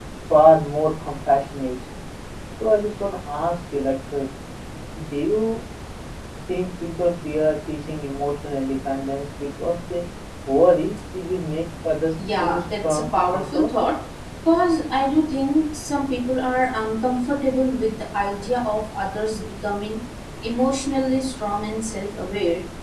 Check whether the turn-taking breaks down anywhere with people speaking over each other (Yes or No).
Yes